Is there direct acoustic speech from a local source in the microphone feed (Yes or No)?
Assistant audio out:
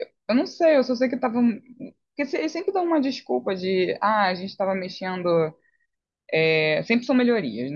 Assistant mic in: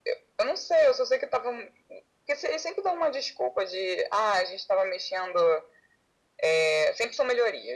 No